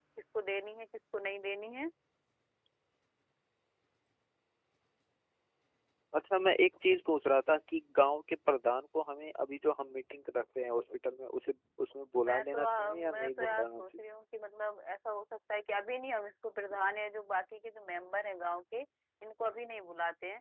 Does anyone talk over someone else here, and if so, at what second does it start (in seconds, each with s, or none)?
12.1 s